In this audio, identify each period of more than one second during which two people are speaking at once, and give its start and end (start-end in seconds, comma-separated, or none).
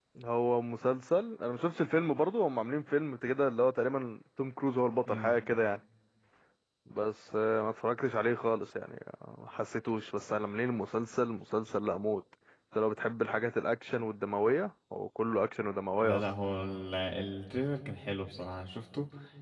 none